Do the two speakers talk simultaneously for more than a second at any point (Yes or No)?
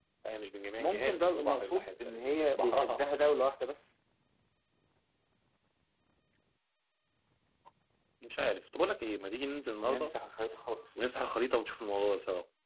Yes